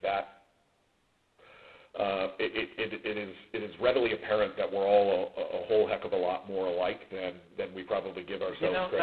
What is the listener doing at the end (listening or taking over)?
taking over